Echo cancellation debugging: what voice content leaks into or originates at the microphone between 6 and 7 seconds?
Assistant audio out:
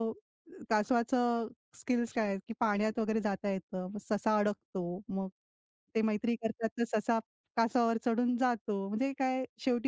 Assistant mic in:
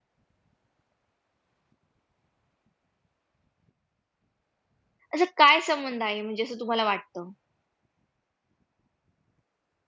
user only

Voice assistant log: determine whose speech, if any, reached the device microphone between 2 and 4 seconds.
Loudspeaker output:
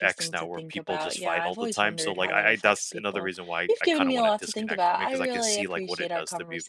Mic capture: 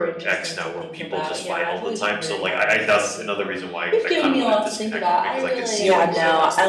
echo only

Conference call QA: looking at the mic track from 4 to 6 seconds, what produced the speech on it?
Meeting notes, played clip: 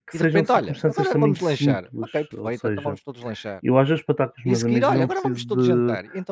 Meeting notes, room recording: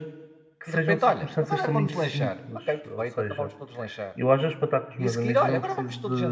echo only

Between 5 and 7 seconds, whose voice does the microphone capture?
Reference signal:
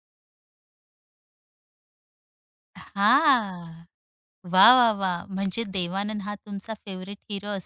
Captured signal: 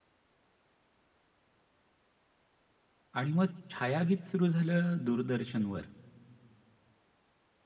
user only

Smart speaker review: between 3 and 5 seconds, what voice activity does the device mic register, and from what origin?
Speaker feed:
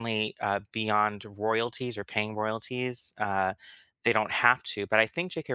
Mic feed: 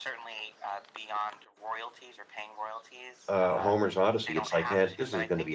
both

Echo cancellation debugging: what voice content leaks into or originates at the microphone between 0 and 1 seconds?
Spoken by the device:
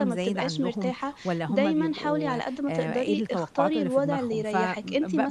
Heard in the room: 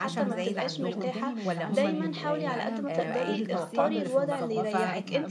both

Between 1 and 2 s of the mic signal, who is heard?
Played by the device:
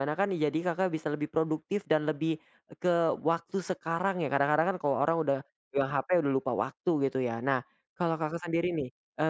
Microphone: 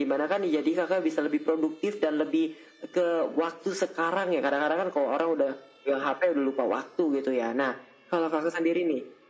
echo only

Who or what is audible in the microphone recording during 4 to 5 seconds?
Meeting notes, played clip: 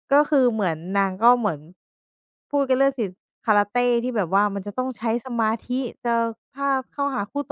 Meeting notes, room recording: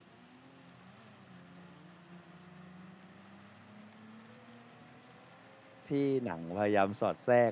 neither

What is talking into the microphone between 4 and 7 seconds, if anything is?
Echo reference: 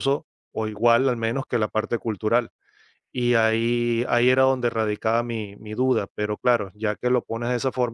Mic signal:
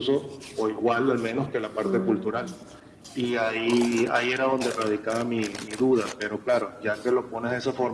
echo only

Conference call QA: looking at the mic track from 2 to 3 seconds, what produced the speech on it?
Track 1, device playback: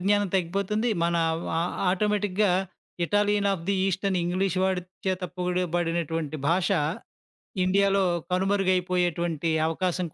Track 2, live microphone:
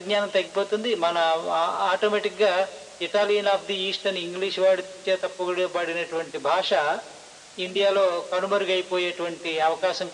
echo only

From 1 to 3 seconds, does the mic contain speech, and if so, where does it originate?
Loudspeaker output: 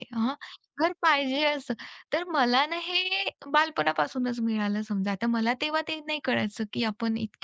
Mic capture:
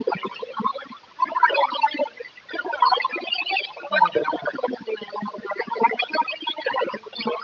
echo only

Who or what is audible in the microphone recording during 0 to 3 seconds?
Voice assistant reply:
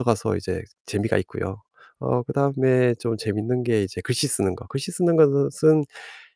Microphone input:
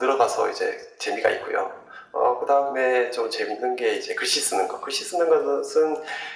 echo only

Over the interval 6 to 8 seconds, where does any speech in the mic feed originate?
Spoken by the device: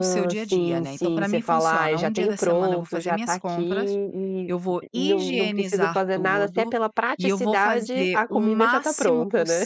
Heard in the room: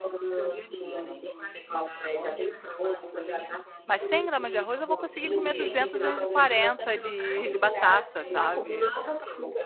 both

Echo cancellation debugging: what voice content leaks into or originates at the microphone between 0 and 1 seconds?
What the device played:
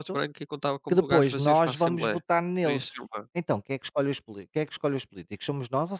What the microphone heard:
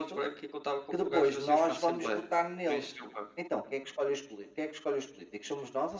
echo only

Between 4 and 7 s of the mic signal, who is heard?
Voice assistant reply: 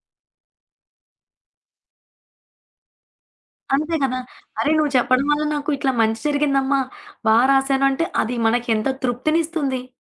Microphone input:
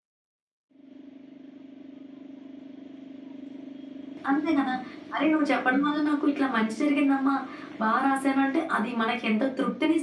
echo only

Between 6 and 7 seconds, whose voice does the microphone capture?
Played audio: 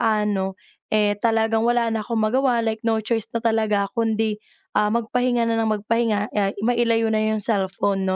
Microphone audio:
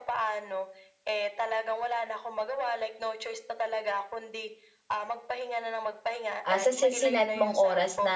both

